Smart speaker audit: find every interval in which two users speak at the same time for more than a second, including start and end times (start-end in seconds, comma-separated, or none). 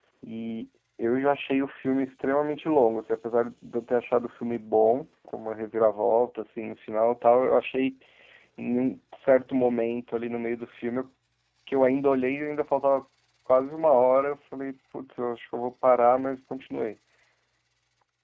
none